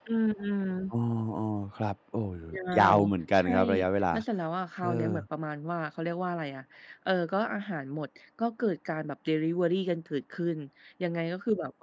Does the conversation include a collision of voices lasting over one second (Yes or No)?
No